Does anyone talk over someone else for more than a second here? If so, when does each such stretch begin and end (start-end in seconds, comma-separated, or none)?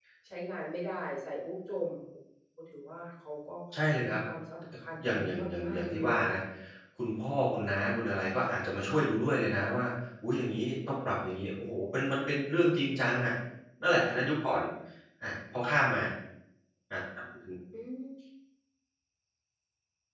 5.0-6.4